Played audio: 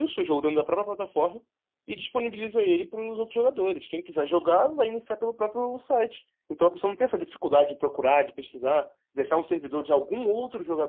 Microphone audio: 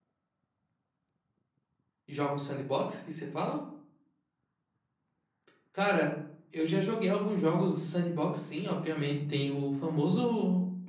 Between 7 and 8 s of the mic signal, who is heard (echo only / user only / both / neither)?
user only